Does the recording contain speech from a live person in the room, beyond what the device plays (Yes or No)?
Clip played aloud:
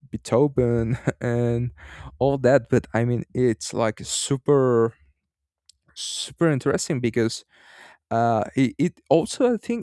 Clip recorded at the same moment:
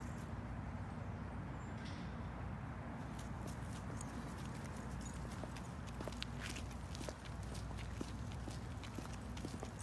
No